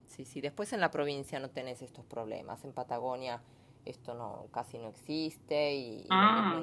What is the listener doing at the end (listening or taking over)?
listening